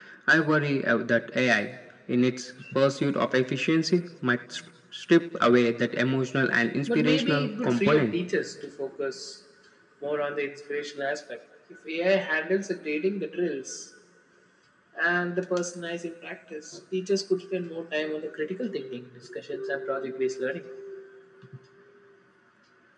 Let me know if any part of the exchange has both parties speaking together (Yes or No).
Yes